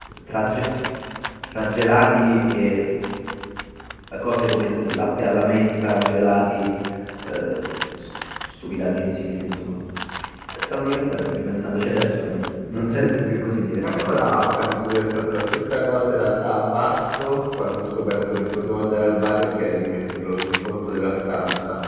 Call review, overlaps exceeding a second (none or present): none